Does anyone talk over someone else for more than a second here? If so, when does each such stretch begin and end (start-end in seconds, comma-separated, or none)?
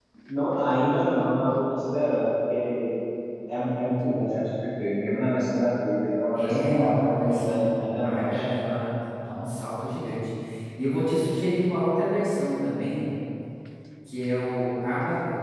6.3-8.4